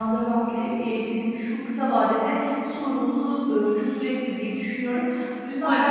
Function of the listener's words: listening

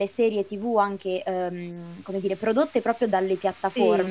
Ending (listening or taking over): listening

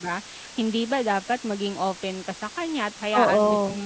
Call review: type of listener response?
listening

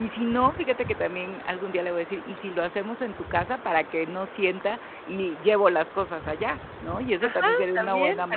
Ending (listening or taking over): taking over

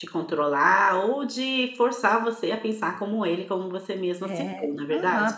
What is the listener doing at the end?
taking over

